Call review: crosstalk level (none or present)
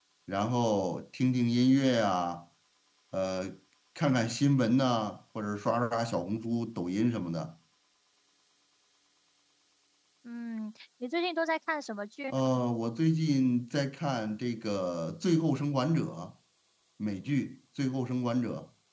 none